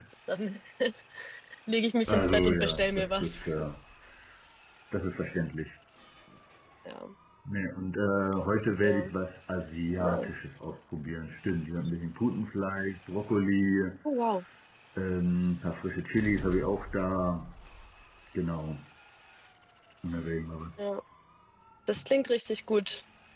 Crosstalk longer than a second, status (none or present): present